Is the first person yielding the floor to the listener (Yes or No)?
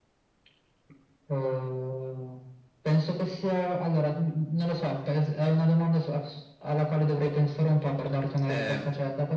No